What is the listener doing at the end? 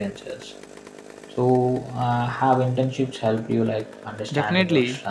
taking over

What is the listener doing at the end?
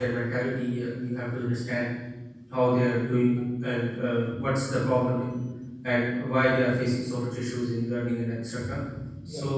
listening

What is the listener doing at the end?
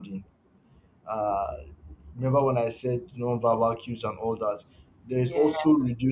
listening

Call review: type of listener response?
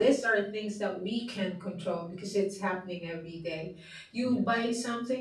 listening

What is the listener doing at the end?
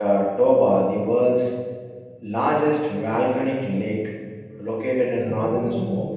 listening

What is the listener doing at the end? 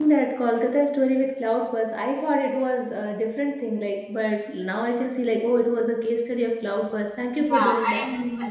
taking over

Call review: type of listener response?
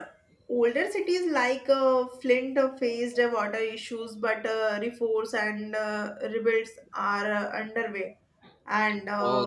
taking over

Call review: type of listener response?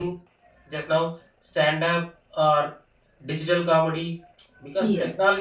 listening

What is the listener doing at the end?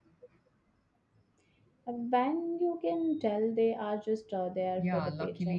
taking over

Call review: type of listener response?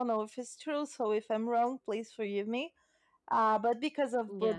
listening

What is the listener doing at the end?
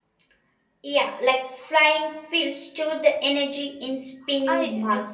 taking over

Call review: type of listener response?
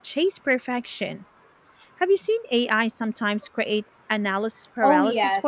taking over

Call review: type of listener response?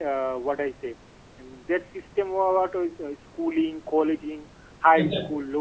listening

